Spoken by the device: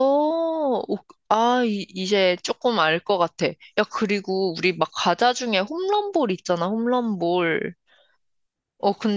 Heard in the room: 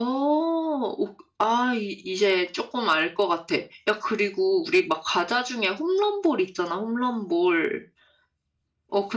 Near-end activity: none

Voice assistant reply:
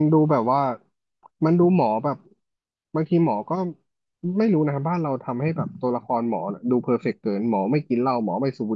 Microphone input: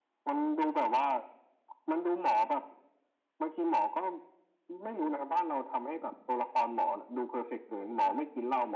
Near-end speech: none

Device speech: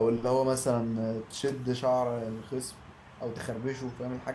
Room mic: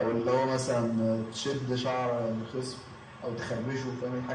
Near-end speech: none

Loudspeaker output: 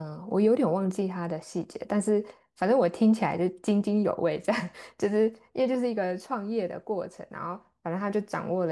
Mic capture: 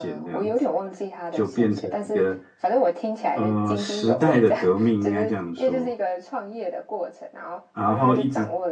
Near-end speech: present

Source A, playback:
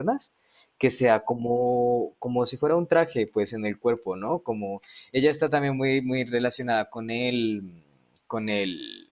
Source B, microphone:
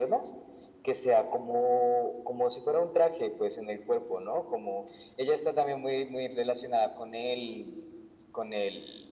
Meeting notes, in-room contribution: none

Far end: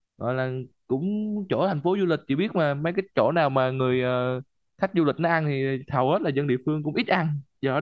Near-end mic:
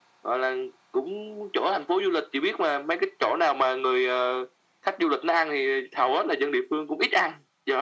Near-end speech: none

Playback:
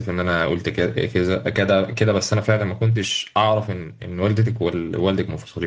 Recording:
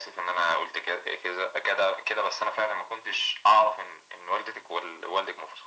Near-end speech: none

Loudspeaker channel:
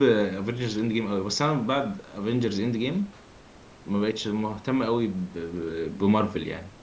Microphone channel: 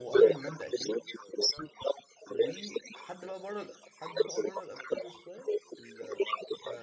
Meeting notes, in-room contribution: present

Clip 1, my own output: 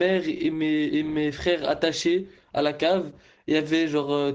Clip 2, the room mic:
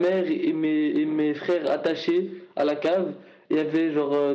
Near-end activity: none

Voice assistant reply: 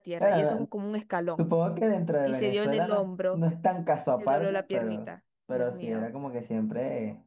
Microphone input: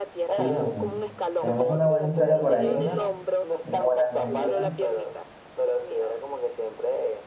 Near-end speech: present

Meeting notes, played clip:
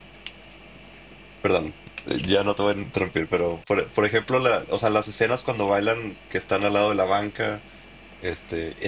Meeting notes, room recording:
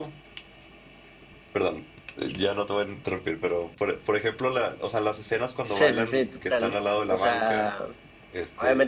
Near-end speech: present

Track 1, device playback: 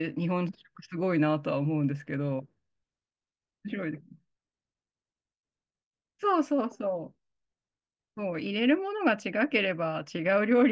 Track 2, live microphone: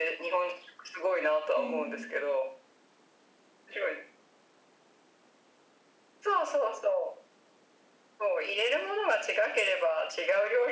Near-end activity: present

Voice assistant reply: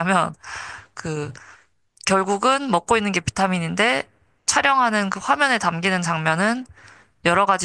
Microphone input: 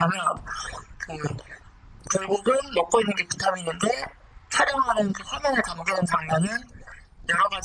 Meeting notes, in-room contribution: none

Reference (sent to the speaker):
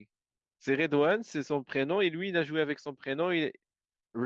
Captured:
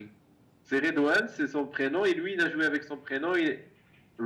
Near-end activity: none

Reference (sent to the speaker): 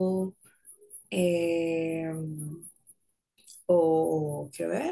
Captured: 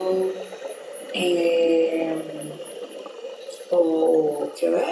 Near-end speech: none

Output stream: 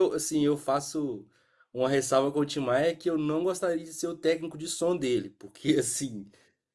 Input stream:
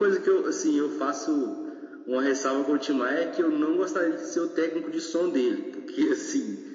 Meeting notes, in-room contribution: none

